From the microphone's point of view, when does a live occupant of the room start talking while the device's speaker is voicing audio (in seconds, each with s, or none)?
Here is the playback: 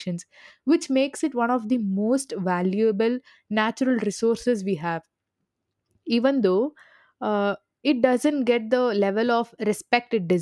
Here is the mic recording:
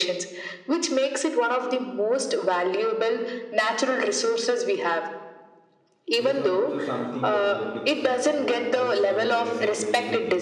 6.2 s